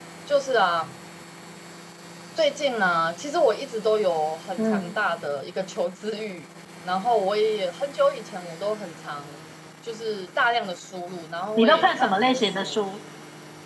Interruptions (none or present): present